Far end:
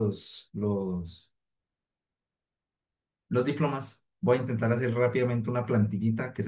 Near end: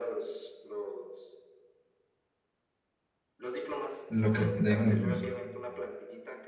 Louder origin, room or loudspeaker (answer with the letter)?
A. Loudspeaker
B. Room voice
B